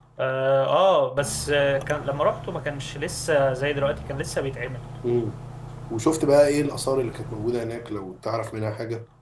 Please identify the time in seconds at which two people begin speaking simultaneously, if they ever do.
none

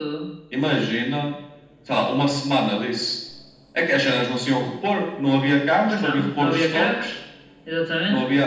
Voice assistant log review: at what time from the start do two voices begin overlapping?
5.9 s

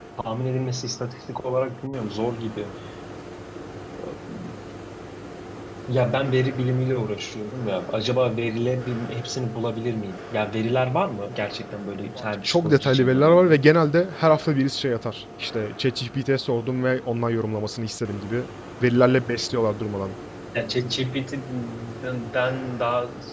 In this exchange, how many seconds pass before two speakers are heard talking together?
12.2 s

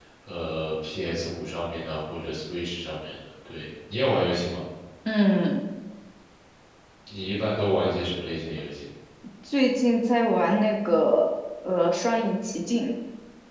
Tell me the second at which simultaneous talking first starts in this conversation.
none

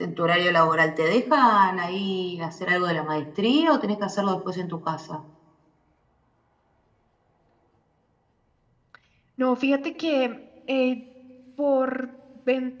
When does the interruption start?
none

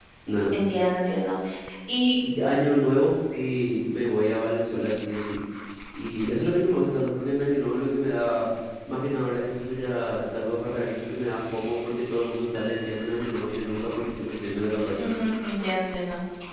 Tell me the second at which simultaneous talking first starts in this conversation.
none

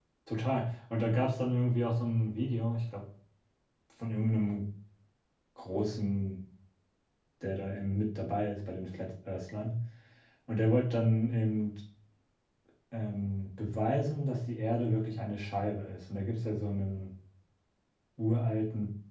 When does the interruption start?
none

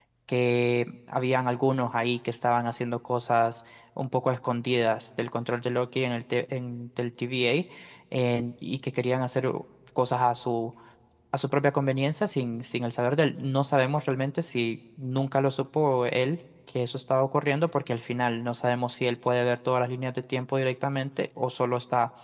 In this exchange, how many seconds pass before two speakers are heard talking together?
none

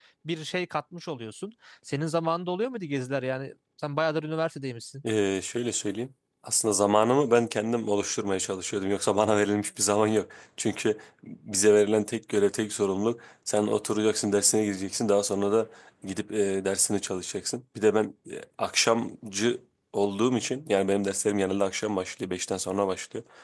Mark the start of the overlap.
none

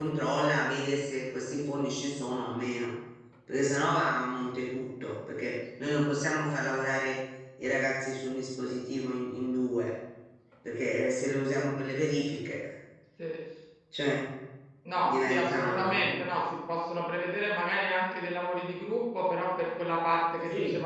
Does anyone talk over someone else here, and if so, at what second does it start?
15.0 s

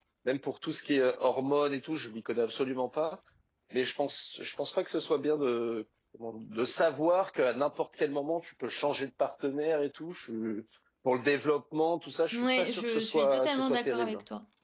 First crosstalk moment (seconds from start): 12.3 s

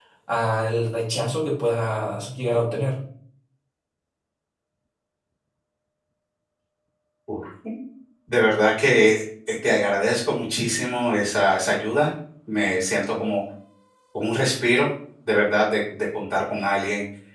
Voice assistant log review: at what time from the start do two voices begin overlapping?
none

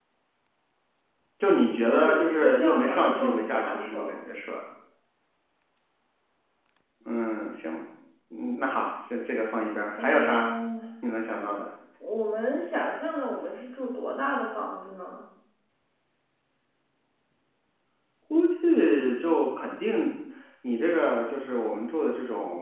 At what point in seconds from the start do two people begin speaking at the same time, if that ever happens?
1.9 s

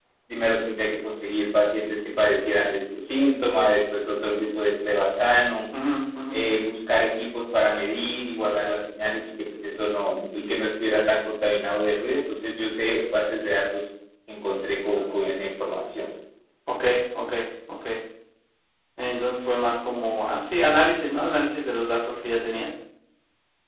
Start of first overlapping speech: none

